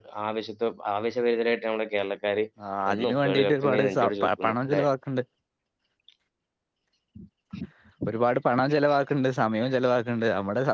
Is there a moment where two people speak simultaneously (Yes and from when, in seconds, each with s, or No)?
Yes, from 2.9 s